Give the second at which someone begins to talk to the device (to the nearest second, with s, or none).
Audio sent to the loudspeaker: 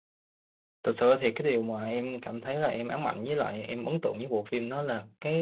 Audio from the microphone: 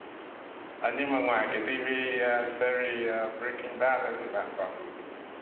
1 s